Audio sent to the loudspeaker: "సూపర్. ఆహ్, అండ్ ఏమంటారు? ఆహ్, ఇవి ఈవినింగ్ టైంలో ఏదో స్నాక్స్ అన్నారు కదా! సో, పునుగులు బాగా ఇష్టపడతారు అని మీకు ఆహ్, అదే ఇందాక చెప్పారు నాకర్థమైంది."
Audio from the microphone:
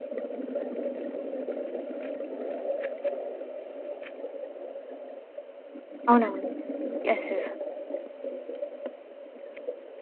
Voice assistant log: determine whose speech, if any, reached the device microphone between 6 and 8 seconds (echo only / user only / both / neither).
user only